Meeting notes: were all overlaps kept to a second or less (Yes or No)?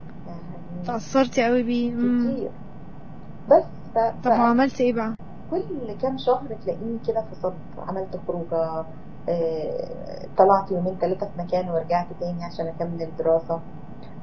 Yes